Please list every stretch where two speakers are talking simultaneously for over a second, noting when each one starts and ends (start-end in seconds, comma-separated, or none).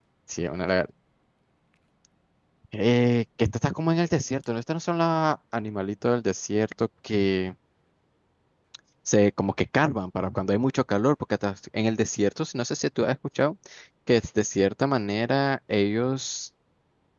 none